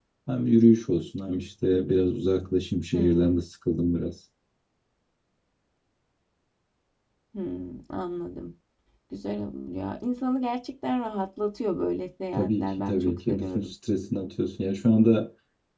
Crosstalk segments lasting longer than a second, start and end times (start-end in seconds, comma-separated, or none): 12.3-13.7